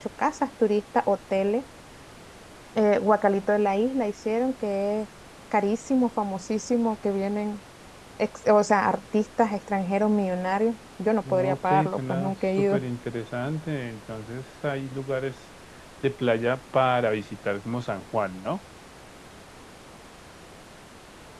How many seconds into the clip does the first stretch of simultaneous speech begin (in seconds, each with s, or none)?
11.2 s